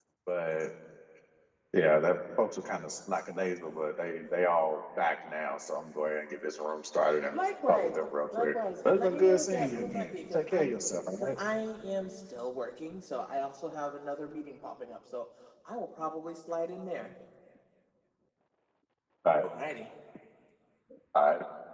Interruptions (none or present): present